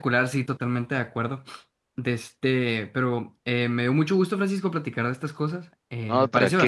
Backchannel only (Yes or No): Yes